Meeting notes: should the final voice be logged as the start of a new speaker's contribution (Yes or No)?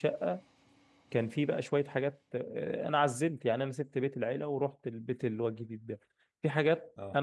No